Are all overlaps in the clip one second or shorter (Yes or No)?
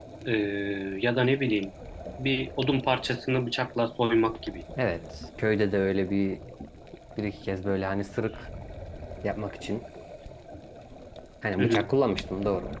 Yes